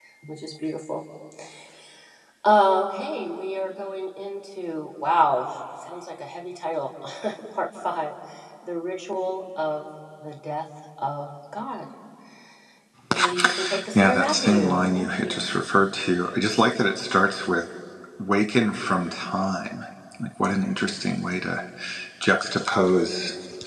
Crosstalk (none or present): present